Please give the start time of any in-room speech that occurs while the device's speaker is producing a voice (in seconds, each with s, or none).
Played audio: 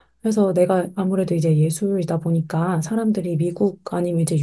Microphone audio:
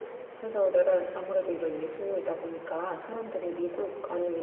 none